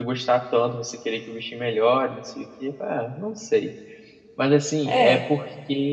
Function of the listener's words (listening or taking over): listening